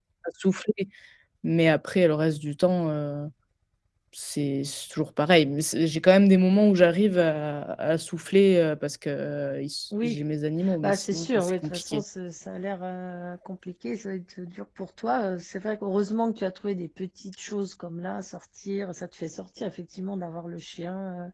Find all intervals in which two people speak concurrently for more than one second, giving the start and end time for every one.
10.8-12.0

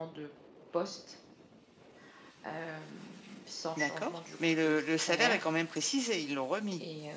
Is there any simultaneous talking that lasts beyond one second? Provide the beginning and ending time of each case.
3.8-5.5

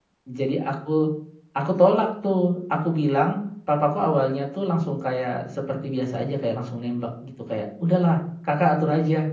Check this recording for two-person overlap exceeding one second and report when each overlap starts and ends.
none

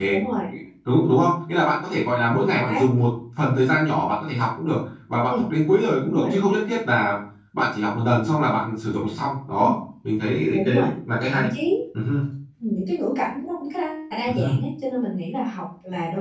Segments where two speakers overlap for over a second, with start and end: none

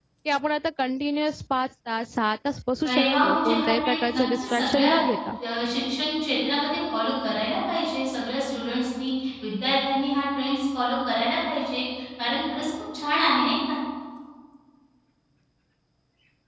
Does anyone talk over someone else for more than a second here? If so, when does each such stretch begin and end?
2.8-4.9

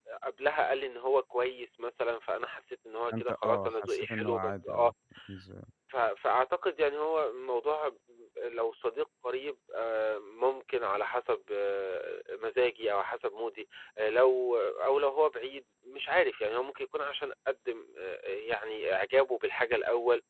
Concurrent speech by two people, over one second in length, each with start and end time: 3.1-4.9

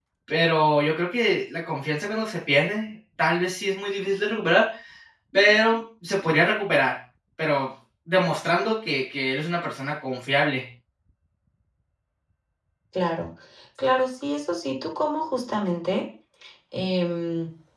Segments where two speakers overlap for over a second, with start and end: none

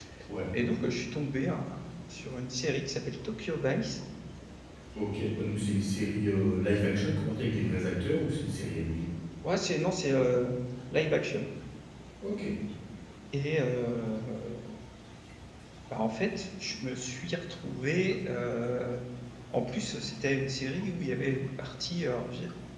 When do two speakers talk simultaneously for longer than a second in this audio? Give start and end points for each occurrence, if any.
none

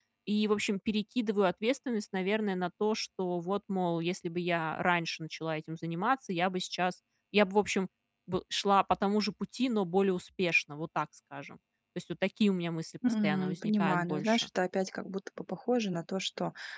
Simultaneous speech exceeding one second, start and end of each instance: 13.2-14.5

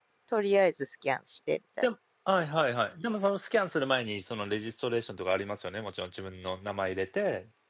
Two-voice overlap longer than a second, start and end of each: none

